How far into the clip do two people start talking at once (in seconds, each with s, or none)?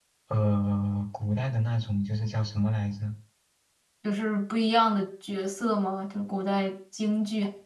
none